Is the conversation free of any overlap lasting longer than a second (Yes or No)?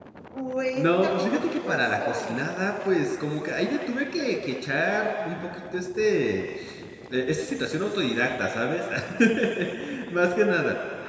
No